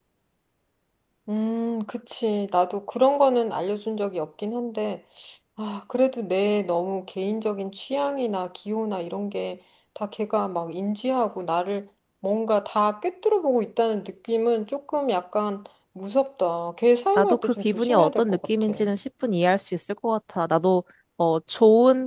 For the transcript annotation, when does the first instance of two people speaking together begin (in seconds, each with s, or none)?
17.2 s